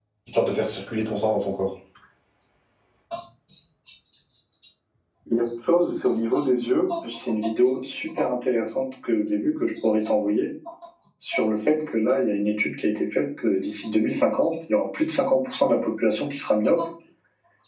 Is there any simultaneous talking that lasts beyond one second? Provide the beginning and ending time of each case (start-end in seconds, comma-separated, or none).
none